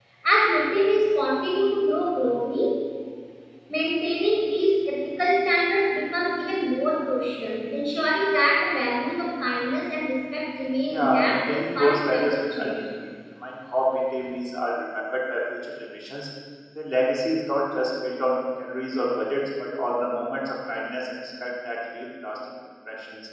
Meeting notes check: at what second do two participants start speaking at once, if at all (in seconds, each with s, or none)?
10.9 s